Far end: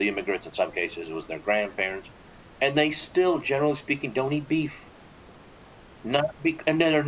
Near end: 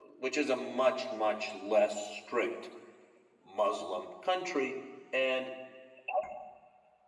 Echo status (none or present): none